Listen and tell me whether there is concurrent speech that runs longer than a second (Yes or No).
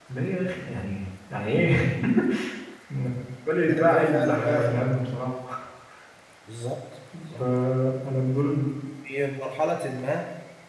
Yes